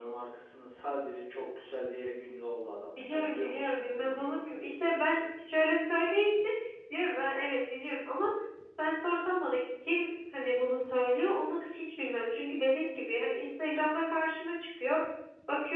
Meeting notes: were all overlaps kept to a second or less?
No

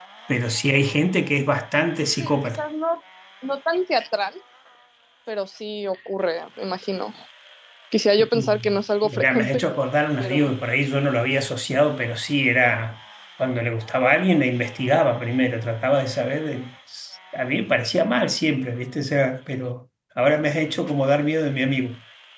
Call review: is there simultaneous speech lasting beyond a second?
Yes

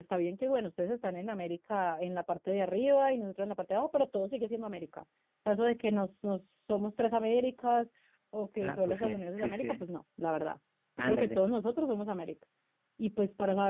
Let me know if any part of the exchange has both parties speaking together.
Yes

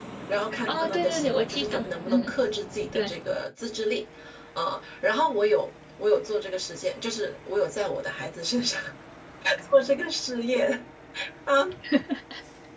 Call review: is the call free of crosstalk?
No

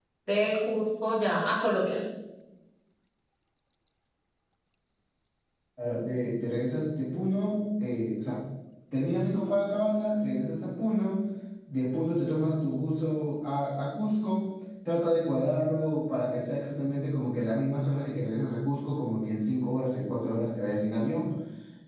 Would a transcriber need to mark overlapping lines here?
No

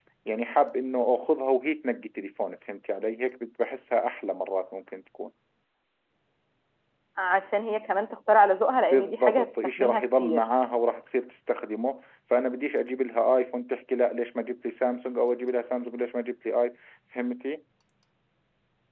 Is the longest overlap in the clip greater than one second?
Yes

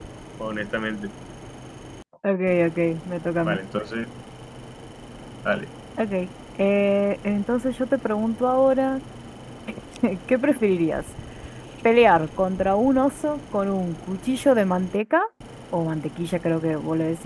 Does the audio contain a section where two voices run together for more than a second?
No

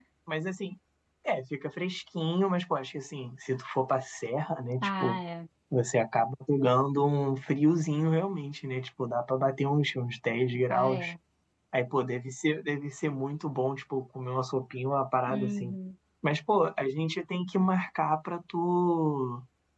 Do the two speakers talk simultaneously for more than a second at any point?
No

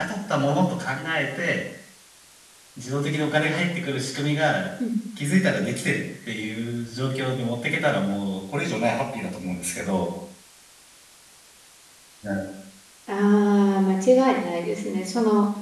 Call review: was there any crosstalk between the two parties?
No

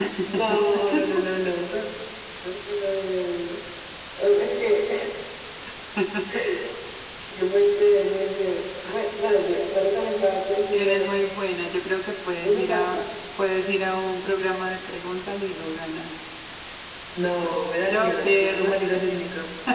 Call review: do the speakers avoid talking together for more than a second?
No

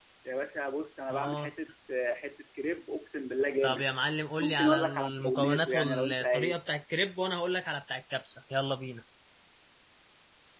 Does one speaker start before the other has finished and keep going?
Yes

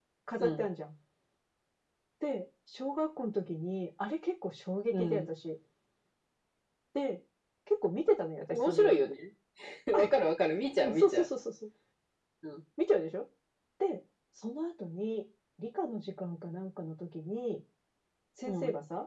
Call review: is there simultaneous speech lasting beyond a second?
No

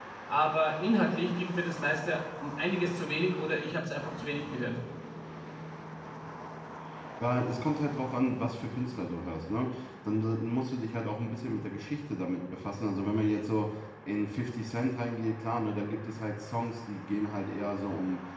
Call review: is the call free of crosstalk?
Yes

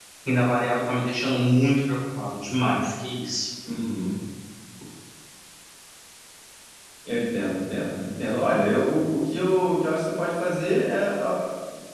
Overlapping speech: No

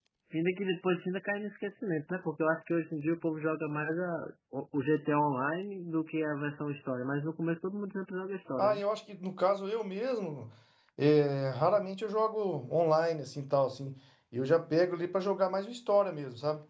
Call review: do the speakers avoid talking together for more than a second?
Yes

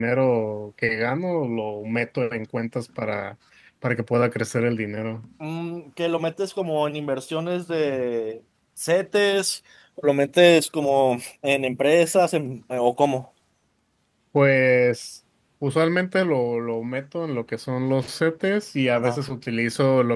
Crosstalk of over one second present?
No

